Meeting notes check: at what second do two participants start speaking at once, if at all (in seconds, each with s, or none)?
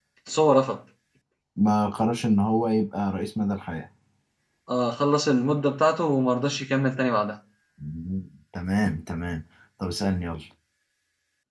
none